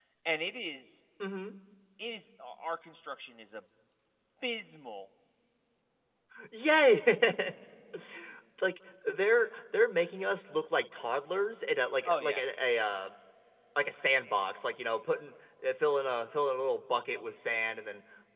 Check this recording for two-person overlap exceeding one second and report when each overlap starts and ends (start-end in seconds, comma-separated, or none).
none